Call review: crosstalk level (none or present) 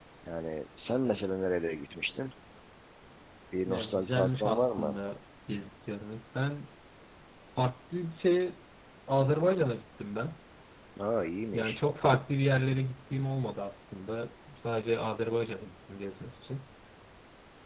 present